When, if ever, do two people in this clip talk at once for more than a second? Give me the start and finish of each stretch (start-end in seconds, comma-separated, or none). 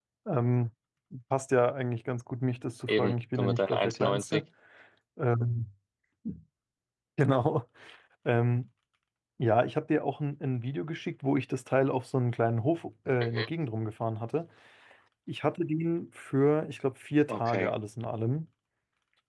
2.9-4.4